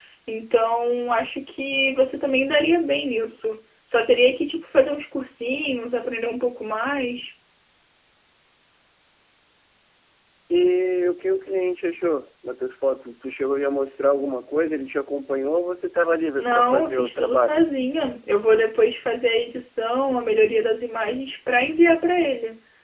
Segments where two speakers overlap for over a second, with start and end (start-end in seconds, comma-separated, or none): 16.4-17.6